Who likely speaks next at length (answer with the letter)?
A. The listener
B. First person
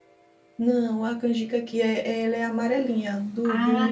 A